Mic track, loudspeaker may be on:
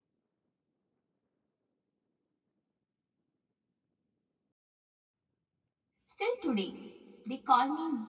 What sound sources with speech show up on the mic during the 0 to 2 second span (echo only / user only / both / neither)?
neither